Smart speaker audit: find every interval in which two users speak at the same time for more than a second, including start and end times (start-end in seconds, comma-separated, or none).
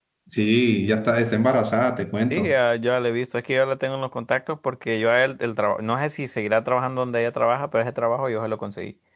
none